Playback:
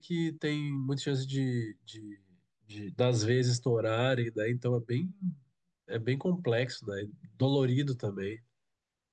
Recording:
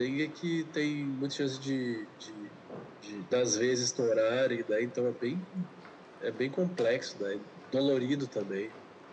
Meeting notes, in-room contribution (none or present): none